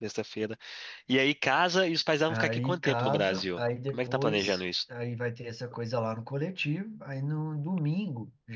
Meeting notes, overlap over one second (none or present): present